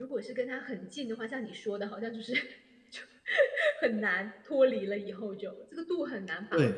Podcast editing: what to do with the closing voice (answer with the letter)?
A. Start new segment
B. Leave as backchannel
A